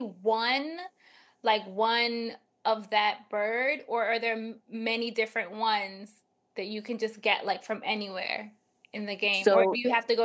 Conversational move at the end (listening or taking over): listening